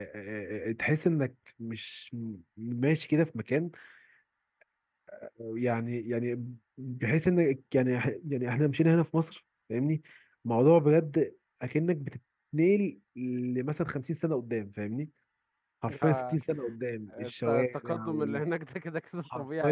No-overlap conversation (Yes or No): No